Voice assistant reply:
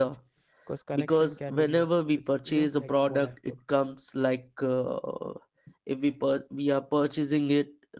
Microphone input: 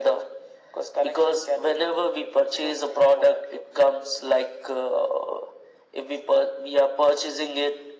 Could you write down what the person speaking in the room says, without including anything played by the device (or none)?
none